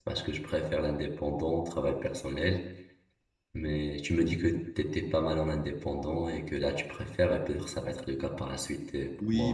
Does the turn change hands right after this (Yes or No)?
Yes